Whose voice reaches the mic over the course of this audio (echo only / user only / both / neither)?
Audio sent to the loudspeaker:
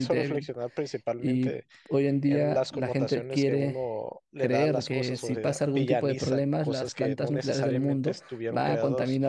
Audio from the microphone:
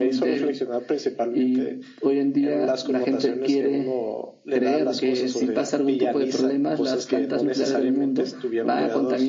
echo only